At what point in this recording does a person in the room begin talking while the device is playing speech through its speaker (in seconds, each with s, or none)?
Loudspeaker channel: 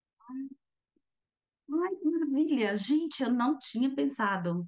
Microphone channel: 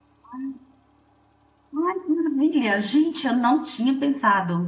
none